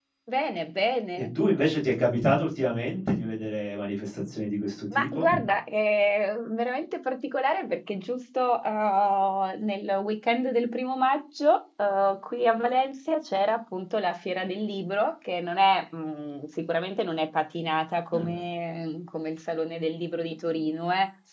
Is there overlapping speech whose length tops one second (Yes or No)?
No